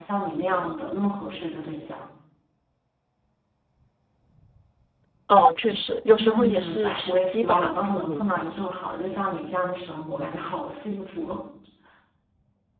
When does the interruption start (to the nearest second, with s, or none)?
6 s